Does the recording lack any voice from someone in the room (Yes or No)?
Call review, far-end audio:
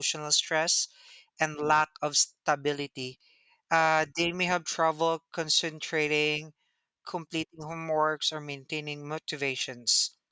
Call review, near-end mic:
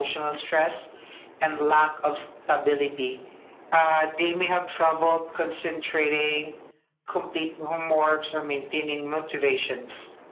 Yes